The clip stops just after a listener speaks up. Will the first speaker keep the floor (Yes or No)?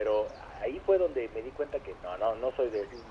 No